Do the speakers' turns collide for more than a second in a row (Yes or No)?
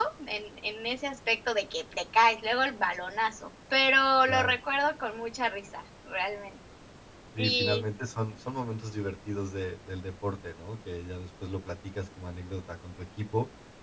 No